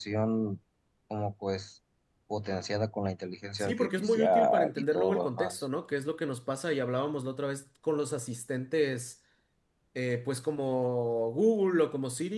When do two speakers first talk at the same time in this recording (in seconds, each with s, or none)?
3.6 s